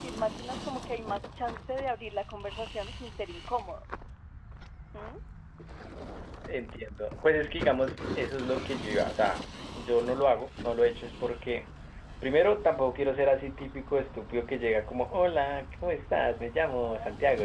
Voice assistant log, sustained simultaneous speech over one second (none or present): none